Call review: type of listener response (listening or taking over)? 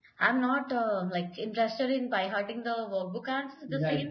listening